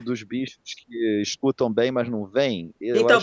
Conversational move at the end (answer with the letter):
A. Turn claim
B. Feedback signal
A